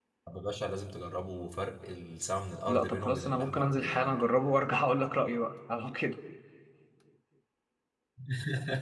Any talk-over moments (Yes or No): Yes